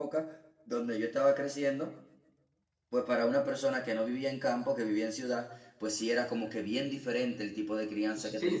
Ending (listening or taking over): taking over